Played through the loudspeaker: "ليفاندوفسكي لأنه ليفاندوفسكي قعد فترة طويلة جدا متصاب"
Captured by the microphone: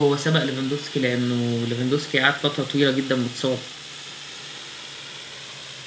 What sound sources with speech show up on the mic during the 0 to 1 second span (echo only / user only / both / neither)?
echo only